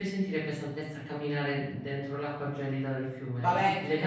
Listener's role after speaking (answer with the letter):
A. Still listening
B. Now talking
B